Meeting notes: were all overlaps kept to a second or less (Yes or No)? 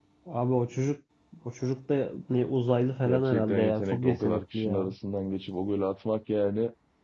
No